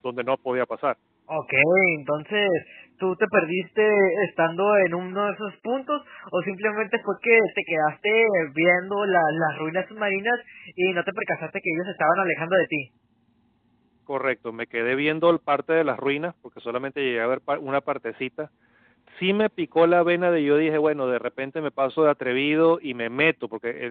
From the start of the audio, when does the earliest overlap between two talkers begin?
none

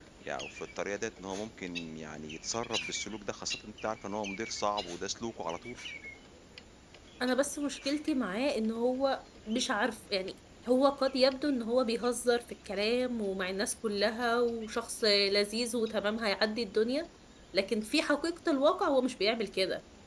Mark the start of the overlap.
none

